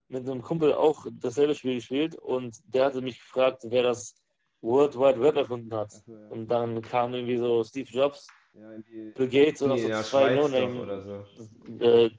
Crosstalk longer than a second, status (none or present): present